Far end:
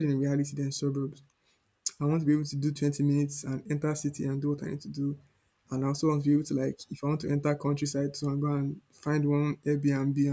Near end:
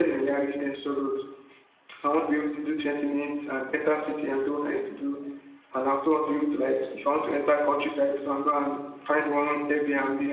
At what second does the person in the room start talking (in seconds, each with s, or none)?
none